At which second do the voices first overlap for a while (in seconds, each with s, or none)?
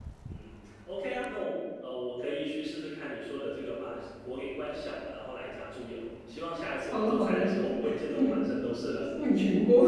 6.9 s